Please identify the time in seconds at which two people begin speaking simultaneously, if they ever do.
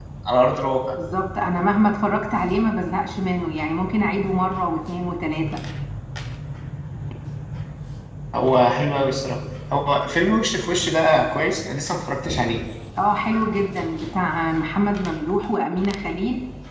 none

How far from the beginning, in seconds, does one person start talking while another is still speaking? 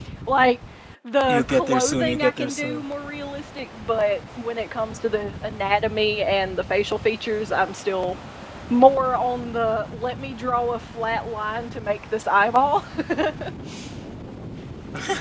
1.3 s

